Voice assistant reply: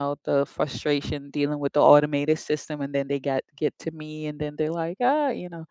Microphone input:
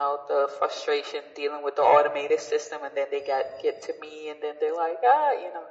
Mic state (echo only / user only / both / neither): echo only